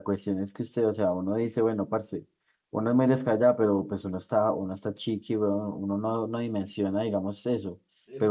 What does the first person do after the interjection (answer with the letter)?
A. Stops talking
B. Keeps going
B